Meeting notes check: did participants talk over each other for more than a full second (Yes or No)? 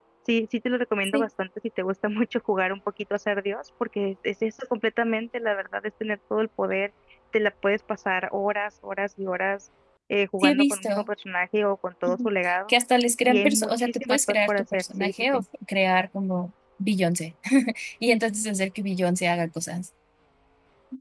Yes